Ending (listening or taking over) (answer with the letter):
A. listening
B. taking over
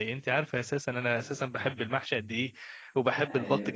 A